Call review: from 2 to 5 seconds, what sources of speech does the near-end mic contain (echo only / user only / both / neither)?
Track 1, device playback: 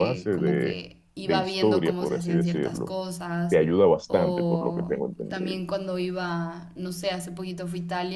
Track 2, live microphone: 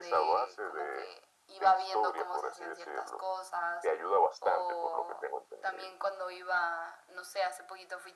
echo only